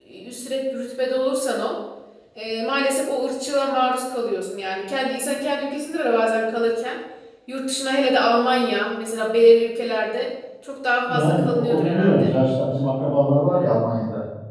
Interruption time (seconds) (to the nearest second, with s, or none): 11 s